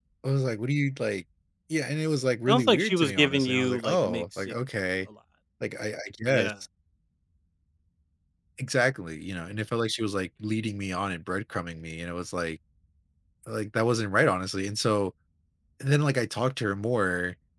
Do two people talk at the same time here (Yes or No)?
Yes